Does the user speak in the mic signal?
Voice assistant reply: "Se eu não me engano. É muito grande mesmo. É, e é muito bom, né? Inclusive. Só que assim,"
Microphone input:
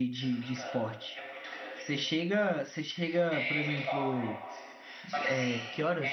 Yes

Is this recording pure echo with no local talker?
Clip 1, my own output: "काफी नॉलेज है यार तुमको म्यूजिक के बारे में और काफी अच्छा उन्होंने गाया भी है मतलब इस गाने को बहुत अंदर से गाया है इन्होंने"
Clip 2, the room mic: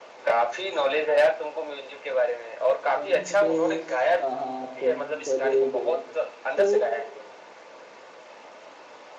No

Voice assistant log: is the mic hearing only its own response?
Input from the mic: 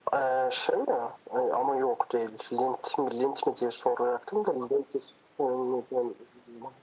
Yes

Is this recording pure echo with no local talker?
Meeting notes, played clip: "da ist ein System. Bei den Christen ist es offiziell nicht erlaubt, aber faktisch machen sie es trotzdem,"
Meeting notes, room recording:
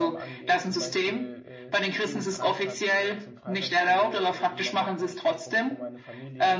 No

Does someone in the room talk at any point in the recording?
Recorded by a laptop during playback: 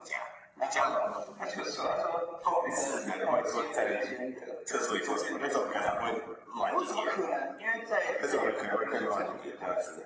No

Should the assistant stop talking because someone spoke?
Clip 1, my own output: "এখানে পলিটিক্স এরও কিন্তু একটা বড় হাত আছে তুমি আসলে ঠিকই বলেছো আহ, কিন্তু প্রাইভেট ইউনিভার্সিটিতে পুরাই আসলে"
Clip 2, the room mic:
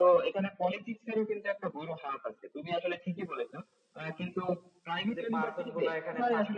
Yes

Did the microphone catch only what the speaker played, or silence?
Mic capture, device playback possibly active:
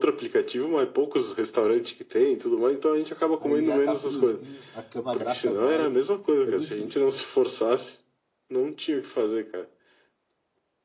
No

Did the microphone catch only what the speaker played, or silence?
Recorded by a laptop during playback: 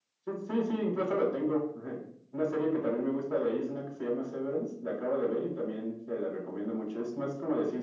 Yes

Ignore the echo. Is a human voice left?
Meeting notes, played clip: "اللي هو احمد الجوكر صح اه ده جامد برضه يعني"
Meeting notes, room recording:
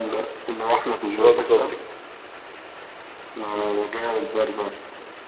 Yes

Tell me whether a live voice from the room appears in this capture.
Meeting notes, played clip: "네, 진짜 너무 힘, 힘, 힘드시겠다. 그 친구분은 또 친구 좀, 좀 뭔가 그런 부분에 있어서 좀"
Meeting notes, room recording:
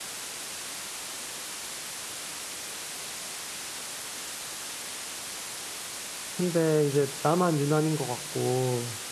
Yes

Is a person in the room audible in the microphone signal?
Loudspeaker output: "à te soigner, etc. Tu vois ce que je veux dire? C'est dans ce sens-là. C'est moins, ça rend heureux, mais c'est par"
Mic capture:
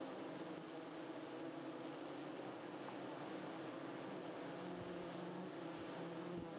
No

